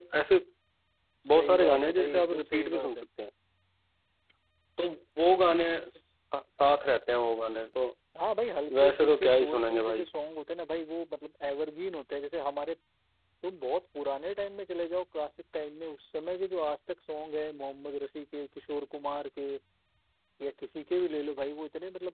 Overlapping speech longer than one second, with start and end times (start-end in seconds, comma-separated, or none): 1.3-3.0, 8.8-10.1